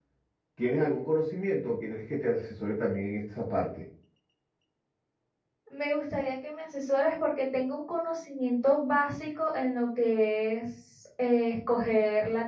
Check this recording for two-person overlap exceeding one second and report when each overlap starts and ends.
none

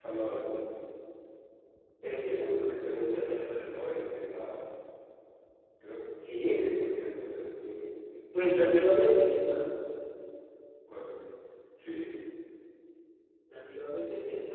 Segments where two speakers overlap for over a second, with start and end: none

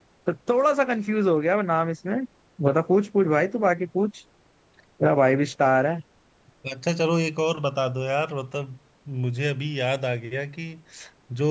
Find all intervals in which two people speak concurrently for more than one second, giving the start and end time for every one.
none

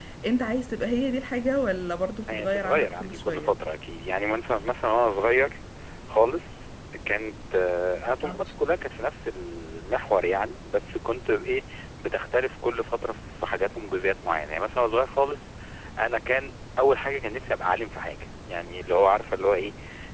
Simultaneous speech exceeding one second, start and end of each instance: 2.3-3.5

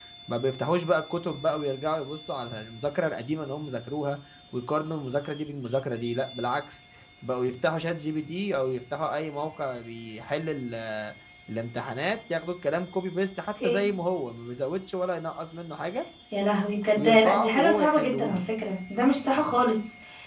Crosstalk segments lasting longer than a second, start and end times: 16.9-18.4

